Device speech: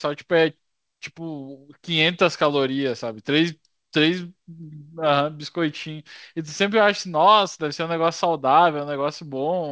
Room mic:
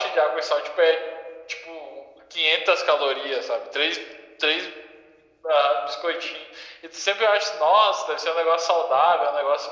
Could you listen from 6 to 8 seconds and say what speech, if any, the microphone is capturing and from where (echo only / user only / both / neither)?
echo only